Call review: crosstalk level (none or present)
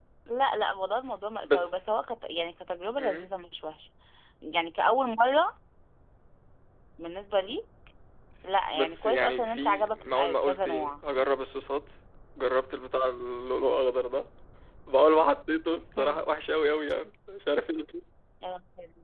present